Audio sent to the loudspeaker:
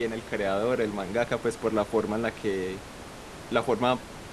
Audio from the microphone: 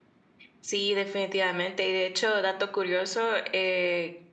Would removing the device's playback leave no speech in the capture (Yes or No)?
No